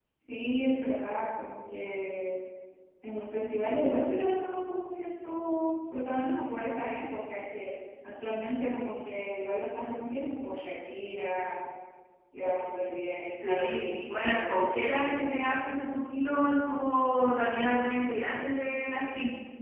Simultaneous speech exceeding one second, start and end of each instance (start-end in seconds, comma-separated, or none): 13.4-15.6